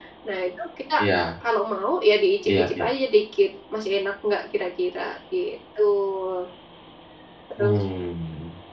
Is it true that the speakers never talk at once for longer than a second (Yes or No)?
Yes